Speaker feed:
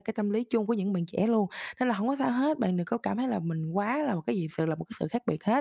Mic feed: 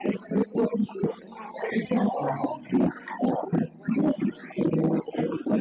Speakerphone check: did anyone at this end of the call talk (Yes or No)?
Yes